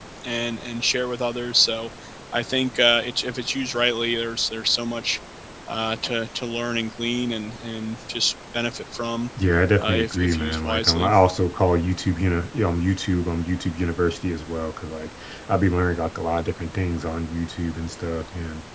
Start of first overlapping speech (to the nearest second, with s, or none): 10 s